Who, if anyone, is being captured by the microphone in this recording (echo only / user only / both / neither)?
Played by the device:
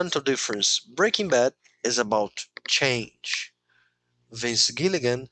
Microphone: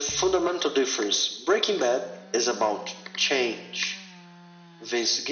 echo only